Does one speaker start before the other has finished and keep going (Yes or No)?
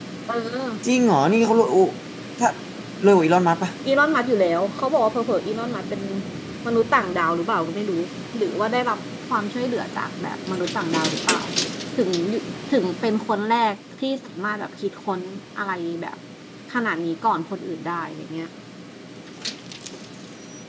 No